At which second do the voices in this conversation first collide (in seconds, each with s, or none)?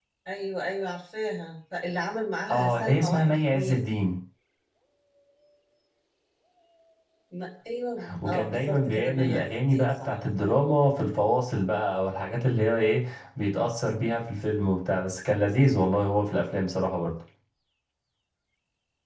2.5 s